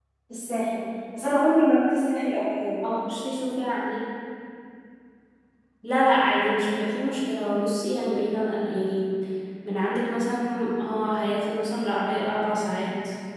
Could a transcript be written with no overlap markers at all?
Yes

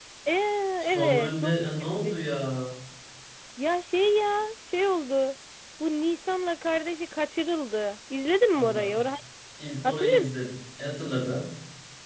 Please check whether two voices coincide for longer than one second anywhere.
Yes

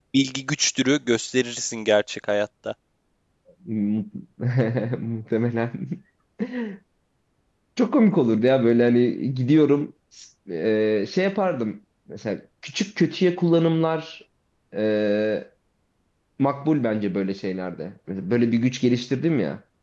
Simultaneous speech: No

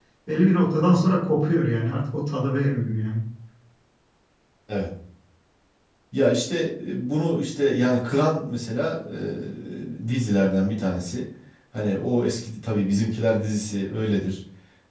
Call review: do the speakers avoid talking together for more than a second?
Yes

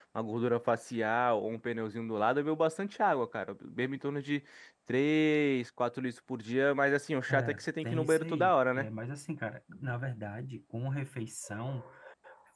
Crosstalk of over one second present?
Yes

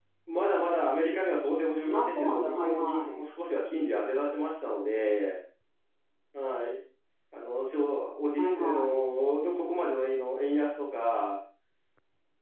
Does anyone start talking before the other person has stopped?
Yes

